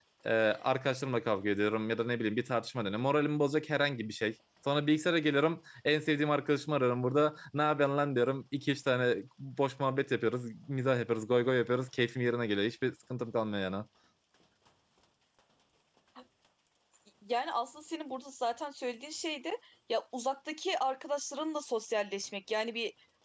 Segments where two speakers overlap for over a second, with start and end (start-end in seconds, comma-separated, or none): none